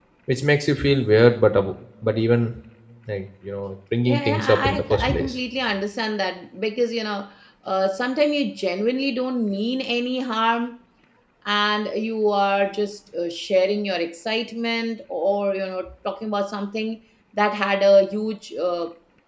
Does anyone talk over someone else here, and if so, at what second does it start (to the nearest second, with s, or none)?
4 s